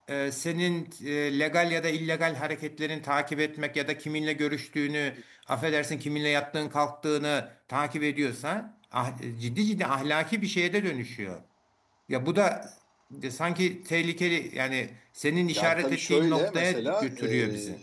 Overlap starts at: 15.5 s

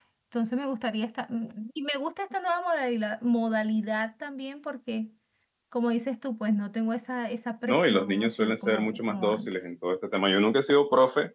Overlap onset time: 7.7 s

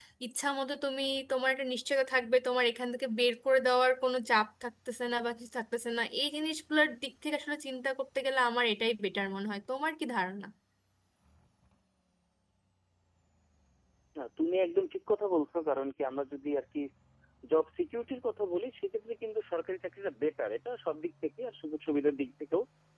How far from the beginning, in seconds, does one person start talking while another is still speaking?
none

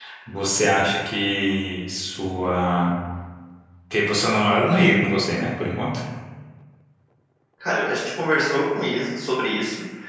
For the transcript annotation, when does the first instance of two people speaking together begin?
none

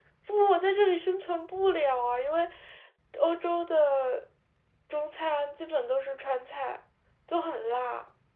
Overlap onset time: none

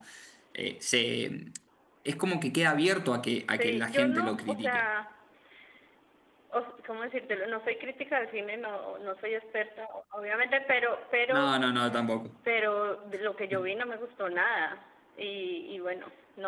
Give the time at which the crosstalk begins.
3.5 s

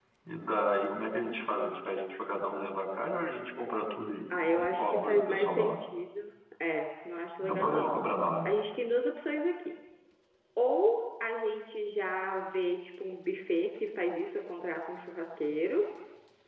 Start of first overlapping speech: 4.3 s

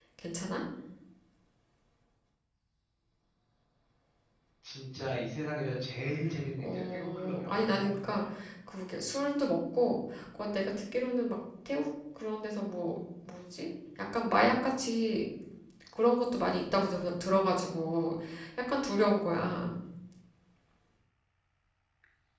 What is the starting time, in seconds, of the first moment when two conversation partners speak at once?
6.6 s

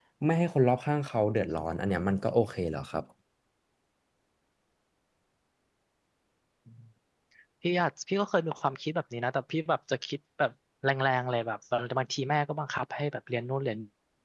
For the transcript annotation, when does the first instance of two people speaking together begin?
none

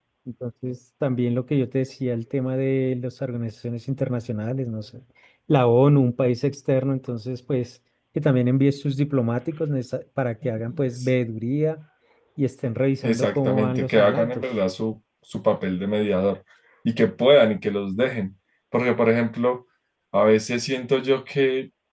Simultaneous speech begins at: 13.0 s

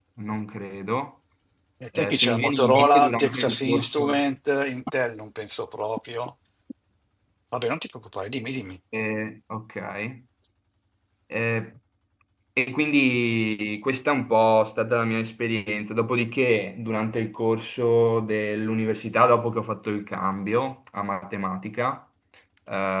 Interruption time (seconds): 1.9 s

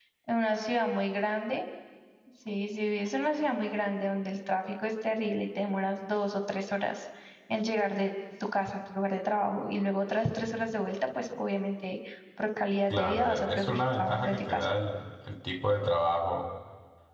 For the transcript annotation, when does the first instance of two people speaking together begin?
12.9 s

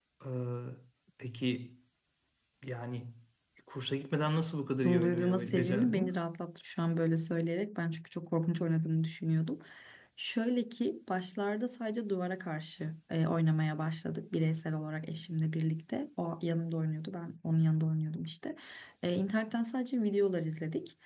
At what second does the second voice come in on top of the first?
4.8 s

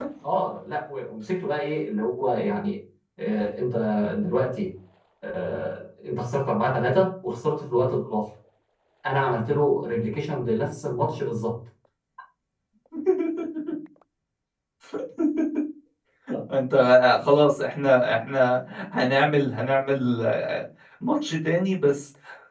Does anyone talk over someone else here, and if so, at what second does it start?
none

